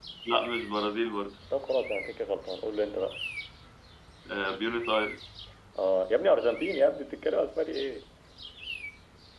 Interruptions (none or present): none